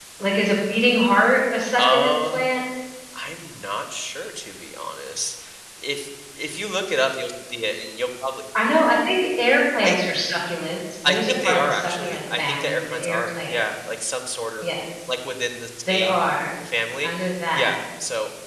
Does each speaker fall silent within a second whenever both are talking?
No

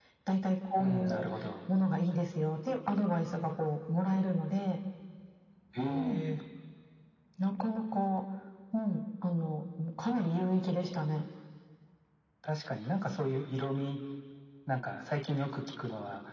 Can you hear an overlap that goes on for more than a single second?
No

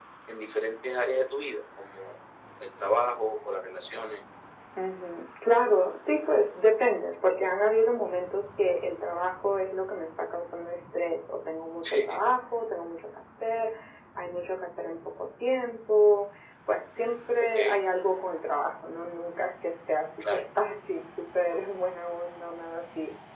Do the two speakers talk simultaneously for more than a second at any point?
No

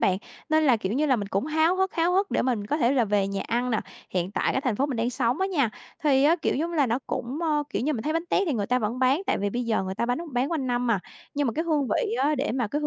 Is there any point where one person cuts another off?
No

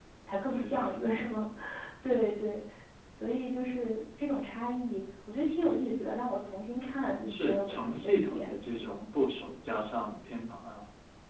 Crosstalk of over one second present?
Yes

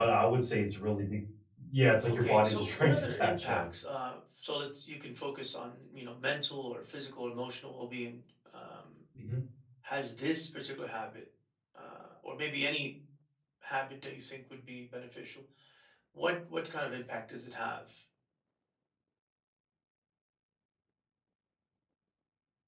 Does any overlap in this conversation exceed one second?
Yes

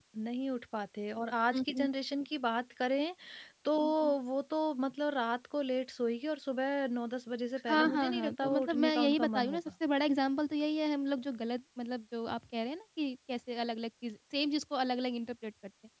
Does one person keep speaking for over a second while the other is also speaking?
Yes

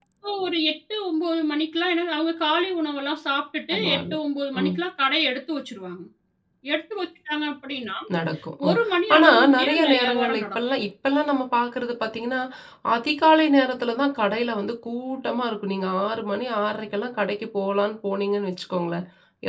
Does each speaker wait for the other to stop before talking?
No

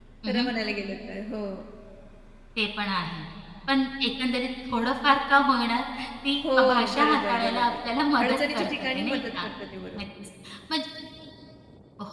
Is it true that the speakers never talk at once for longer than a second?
No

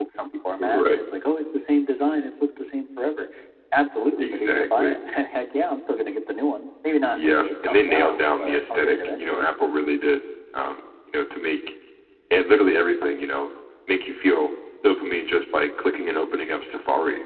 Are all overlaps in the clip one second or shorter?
No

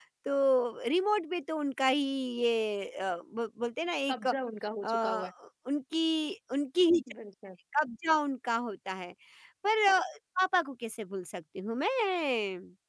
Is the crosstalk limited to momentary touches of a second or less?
Yes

